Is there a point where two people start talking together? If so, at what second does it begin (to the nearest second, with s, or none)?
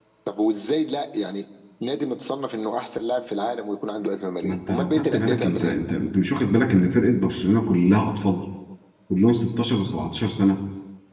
4 s